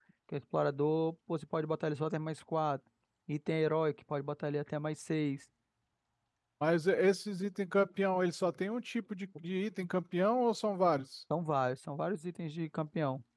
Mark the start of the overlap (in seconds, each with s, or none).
none